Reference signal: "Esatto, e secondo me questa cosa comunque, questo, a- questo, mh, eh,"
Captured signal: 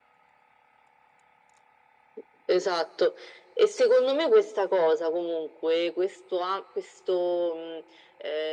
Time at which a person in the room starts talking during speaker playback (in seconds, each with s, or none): none